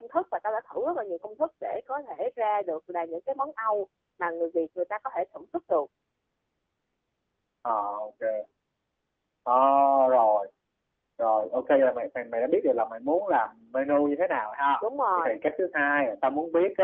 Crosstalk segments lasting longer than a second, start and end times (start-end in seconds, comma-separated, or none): none